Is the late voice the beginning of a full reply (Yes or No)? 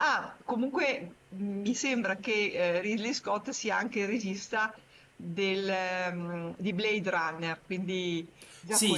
Yes